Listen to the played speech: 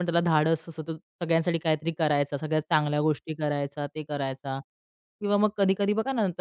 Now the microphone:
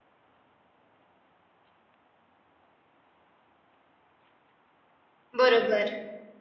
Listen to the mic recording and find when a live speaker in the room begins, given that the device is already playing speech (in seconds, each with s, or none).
5.4 s